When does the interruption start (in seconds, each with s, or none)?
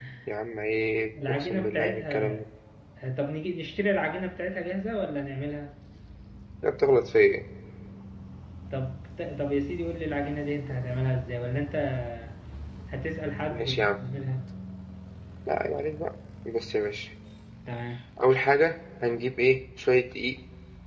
1.3 s